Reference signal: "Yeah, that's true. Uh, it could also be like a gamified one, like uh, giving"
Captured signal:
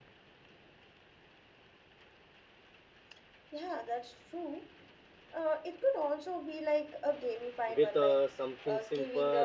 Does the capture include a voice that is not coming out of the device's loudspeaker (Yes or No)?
Yes